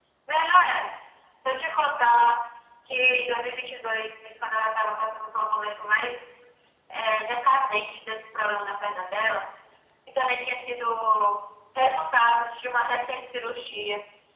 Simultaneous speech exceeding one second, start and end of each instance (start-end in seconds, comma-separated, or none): none